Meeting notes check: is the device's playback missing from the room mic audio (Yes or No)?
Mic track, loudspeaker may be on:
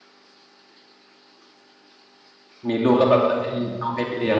Yes